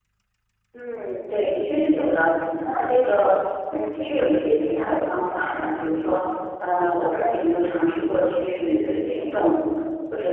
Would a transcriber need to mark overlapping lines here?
No

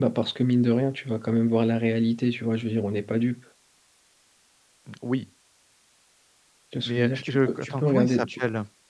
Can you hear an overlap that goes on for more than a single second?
Yes, from 6.8 s

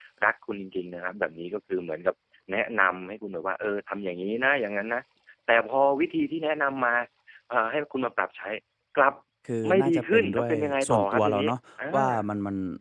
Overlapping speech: Yes, from 9.7 s

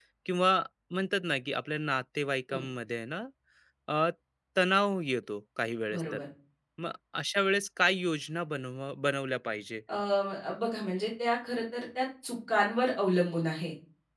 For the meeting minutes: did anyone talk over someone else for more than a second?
No

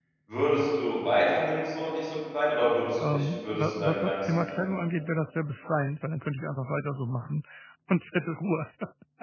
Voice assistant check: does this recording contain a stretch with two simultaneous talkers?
Yes, from 3.0 s

